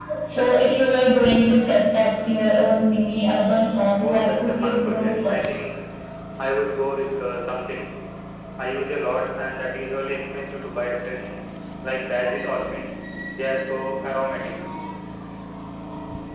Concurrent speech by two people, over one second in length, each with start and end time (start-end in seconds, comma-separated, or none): 4.0-5.6